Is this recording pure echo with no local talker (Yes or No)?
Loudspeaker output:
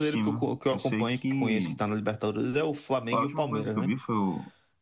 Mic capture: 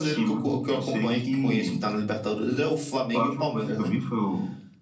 Yes